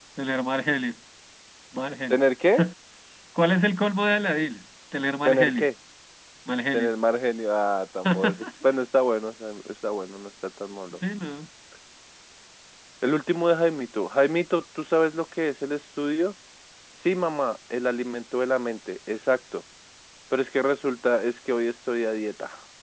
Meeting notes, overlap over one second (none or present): none